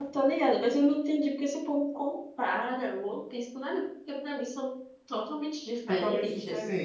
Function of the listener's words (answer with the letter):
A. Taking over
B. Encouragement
A